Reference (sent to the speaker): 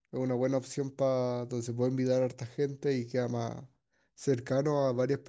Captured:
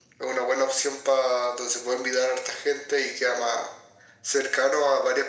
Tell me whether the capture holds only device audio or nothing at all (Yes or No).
Yes